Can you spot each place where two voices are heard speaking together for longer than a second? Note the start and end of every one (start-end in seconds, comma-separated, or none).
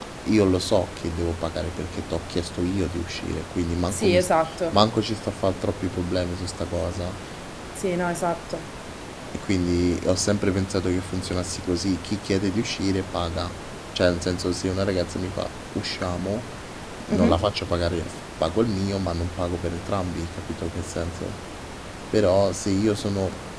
none